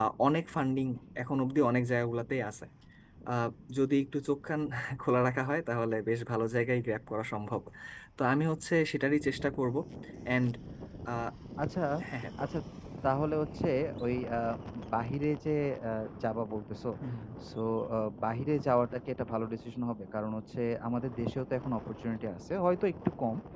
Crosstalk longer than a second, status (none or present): none